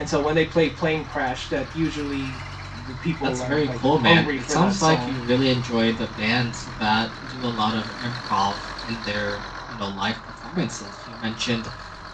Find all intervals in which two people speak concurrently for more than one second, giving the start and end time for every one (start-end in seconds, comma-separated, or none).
3.2-5.2